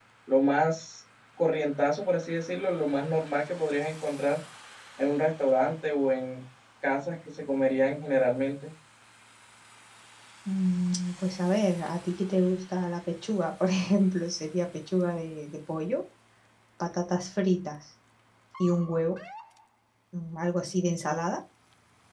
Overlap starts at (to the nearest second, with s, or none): none